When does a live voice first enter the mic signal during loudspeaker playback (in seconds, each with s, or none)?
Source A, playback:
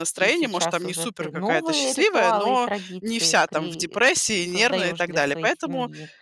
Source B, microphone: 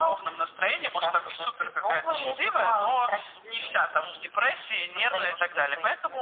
none